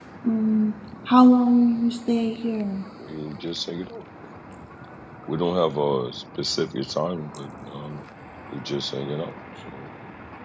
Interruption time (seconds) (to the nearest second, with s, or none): none